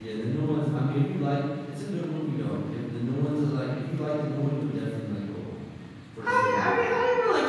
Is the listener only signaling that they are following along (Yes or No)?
No